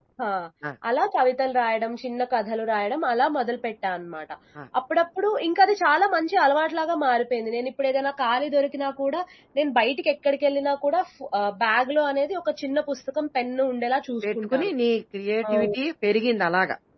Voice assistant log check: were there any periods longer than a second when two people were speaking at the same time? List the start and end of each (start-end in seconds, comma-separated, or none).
none